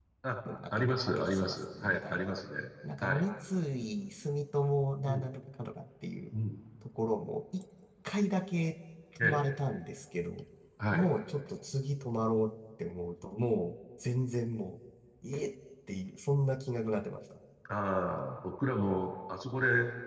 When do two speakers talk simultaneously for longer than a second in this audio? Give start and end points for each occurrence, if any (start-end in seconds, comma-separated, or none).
0.7-2.3